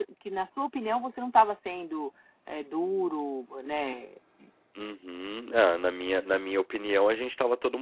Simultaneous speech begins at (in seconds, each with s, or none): none